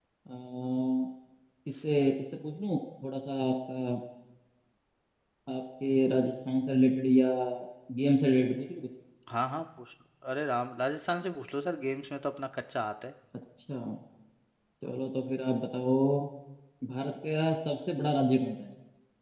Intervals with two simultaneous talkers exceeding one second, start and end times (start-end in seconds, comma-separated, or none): none